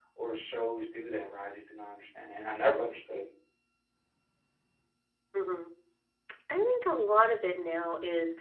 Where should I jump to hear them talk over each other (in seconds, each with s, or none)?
none